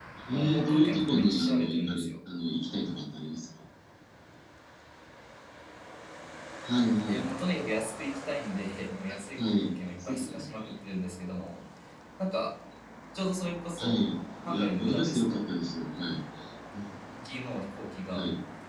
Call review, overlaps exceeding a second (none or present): present